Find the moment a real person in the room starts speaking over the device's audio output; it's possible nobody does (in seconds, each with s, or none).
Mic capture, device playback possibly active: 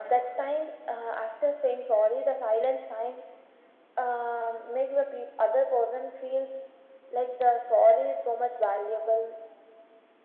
none